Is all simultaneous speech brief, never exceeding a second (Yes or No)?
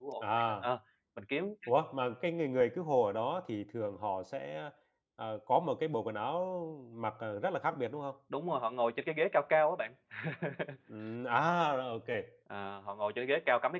Yes